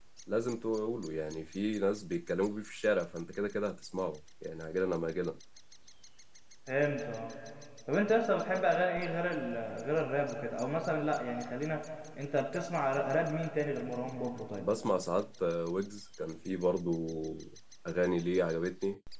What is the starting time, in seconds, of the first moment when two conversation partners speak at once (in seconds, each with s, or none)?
none